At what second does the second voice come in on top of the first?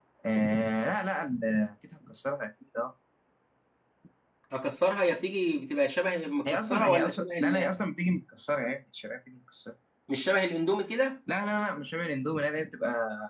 6.5 s

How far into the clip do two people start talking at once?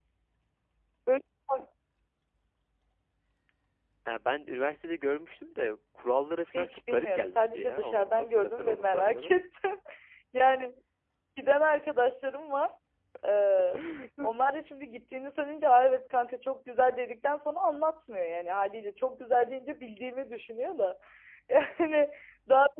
6.5 s

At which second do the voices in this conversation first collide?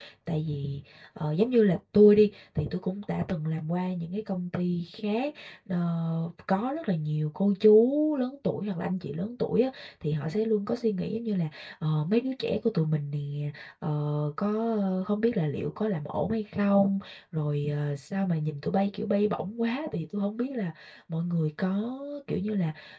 none

